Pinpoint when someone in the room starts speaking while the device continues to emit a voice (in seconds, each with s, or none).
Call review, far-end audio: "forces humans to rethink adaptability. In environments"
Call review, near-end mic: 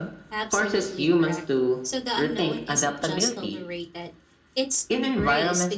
0.3 s